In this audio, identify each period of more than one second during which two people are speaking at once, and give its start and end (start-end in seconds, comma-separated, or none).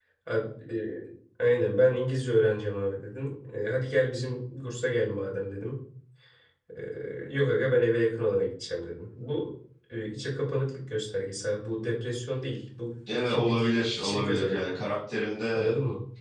13.1-14.8